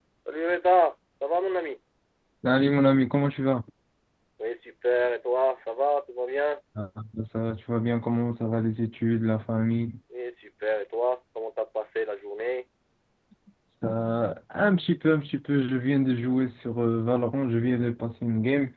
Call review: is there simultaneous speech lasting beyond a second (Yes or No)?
No